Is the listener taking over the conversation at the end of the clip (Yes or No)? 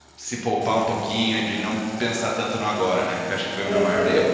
Yes